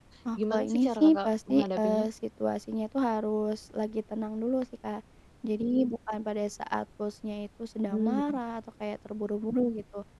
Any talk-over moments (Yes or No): Yes